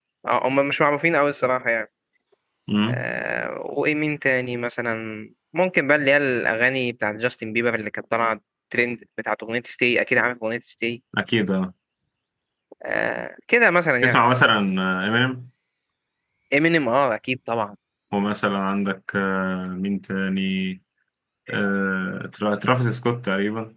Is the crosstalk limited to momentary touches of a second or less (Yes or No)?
Yes